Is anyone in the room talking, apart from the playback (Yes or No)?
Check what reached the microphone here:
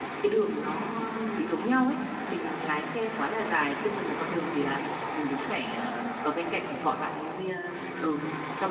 No